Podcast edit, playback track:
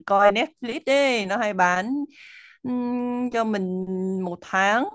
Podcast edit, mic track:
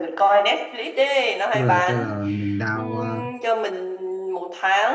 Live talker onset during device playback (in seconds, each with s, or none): 1.5 s